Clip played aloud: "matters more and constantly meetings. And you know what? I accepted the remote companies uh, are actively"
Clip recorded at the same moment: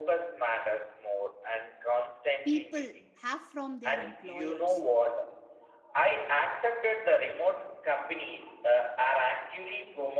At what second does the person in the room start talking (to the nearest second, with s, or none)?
2 s